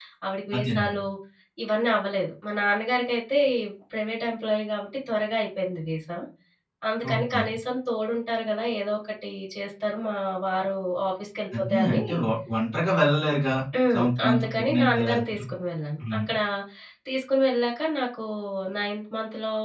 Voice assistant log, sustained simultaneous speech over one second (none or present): present